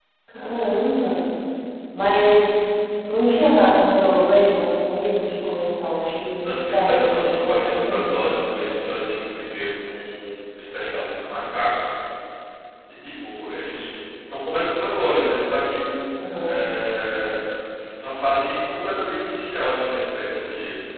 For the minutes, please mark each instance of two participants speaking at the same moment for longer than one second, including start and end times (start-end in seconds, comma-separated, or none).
6.4-8.1